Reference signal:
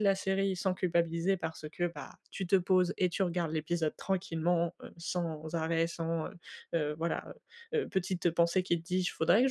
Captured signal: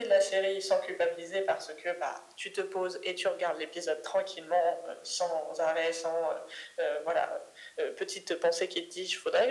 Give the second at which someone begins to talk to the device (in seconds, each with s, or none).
none